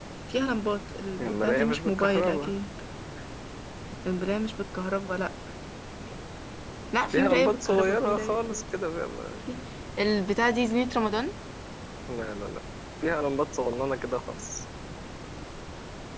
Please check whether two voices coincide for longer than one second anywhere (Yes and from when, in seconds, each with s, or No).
Yes, from 1.2 s